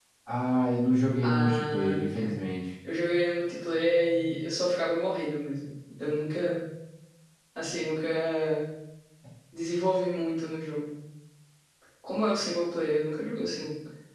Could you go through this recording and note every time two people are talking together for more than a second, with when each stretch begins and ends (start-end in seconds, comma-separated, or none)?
1.2-2.4